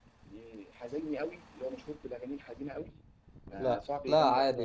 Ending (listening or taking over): taking over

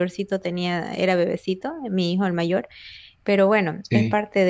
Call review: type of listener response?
listening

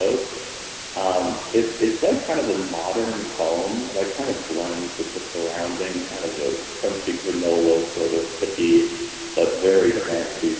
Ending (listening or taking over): listening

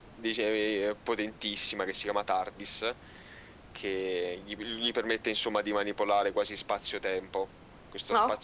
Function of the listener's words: listening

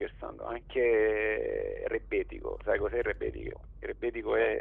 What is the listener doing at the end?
listening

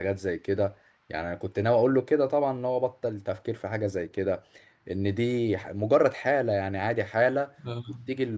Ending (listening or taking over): listening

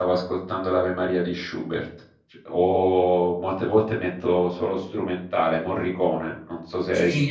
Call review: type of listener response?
taking over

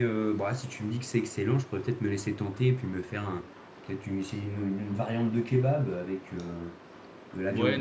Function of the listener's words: taking over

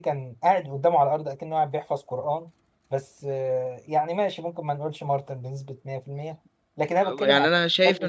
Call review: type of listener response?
taking over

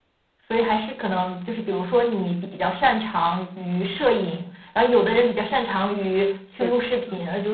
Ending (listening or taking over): listening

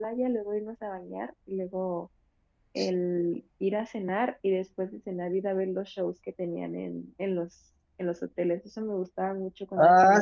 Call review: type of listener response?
taking over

